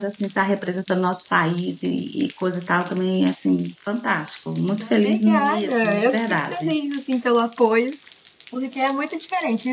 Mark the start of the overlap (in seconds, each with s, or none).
4.8 s